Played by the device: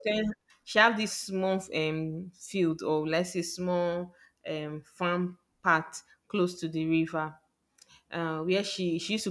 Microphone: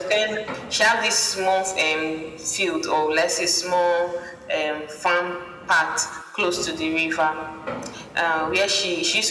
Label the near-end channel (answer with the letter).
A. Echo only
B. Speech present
A